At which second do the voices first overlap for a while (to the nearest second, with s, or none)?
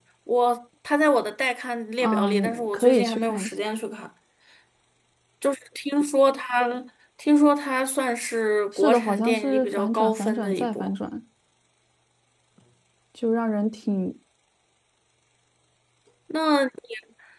2 s